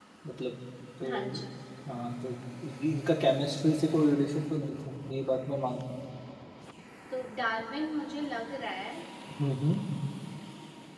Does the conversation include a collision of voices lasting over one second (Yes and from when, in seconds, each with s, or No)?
No